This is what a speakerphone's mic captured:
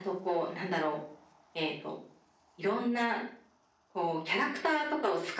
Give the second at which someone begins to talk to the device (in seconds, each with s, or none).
none